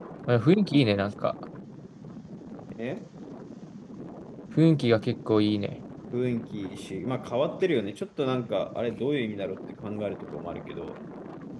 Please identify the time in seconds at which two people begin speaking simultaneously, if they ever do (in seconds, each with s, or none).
none